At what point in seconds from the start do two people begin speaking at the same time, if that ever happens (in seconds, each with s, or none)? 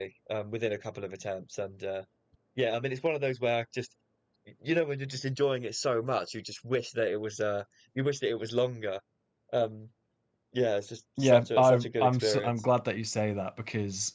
11.2 s